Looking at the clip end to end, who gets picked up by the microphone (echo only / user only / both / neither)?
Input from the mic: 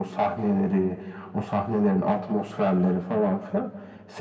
echo only